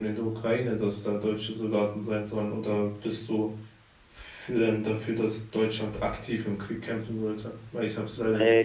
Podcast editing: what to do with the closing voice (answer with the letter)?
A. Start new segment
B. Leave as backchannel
A